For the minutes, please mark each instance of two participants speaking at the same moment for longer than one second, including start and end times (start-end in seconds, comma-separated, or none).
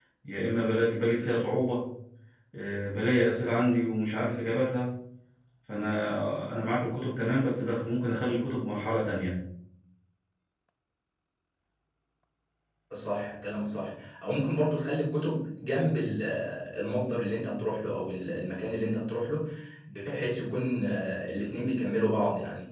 none